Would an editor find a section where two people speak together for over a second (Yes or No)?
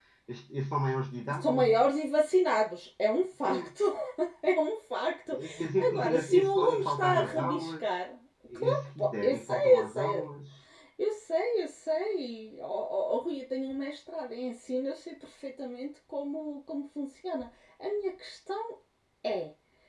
Yes